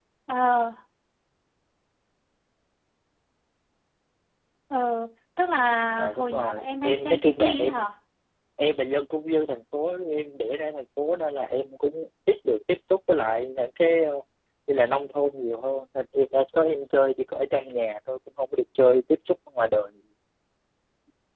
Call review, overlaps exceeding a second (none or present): present